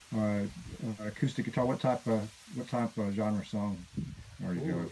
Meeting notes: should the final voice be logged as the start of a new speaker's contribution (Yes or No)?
Yes